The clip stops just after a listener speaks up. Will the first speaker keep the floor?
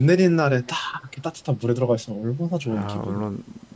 No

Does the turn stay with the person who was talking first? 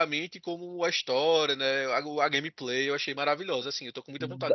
No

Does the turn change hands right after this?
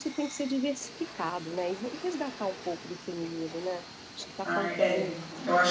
Yes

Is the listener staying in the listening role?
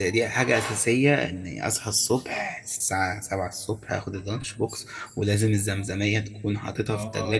No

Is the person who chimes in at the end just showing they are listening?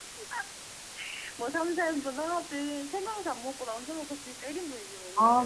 No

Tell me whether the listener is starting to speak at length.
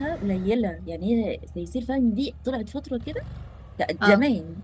No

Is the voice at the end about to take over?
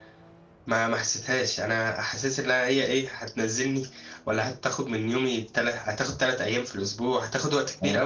No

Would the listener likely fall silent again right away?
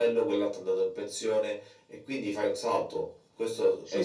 No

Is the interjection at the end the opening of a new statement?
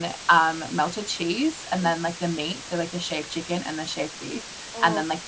No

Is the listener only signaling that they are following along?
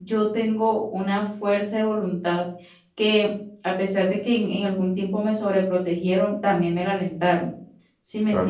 No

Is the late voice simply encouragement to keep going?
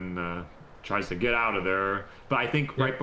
Yes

